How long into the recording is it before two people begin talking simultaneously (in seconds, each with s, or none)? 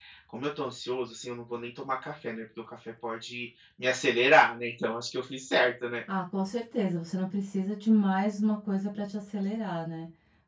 none